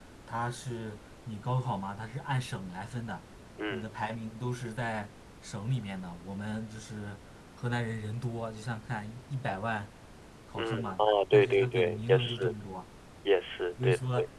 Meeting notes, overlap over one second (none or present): present